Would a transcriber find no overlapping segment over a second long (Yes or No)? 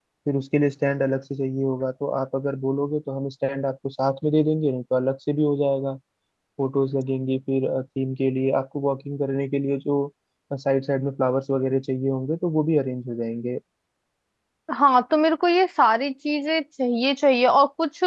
Yes